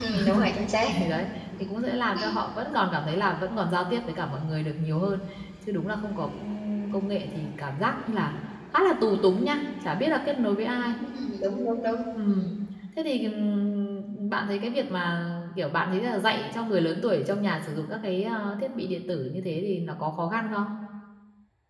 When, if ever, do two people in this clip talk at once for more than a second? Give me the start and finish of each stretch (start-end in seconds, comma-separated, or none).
none